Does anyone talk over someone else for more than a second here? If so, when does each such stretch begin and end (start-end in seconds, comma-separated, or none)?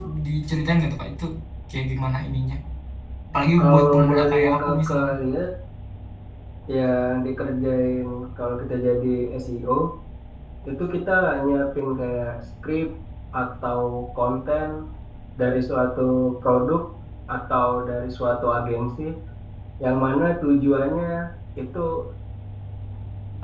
3.6-5.1